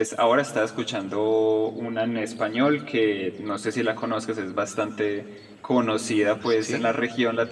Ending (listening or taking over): listening